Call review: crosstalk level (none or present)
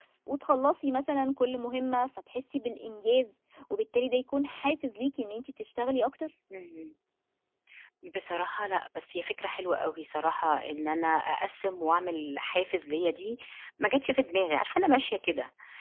none